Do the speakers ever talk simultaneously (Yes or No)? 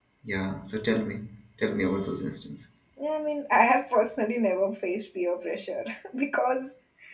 No